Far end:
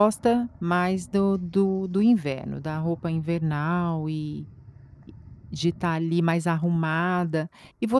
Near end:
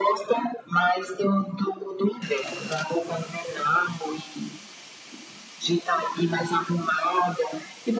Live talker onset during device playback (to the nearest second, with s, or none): none